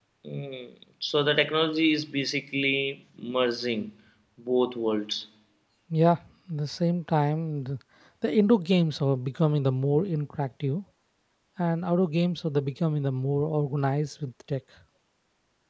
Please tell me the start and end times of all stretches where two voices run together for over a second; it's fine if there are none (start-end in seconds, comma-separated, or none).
none